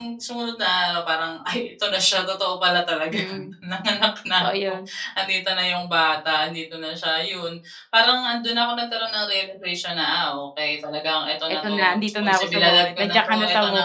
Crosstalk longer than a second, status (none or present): present